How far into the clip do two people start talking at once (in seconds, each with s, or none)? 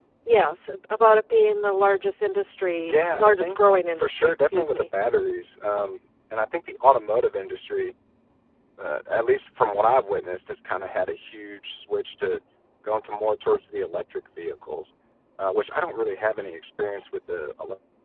2.8 s